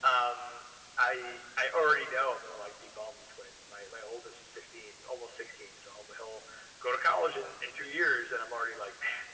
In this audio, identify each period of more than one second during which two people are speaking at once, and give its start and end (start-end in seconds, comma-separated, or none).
none